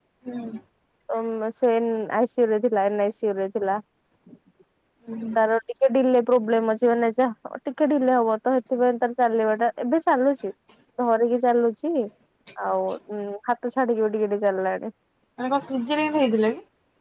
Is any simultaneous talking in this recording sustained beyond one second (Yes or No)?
No